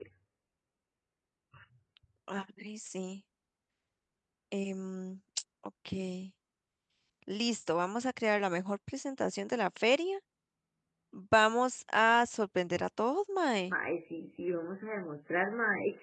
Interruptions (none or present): none